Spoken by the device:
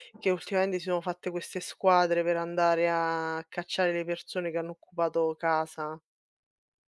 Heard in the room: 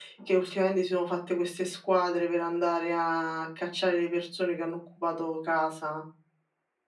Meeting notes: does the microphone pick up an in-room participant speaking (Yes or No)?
No